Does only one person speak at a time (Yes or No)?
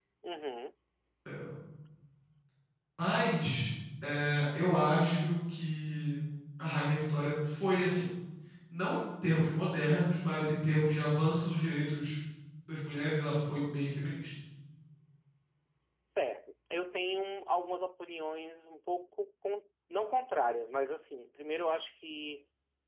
Yes